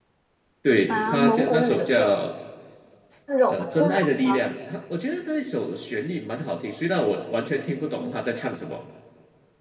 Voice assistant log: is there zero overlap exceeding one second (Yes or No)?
No